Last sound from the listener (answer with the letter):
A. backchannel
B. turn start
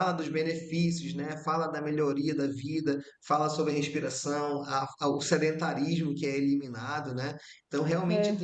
A